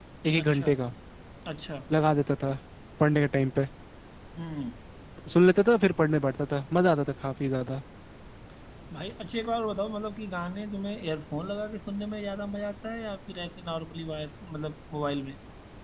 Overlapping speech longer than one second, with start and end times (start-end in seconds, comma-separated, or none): none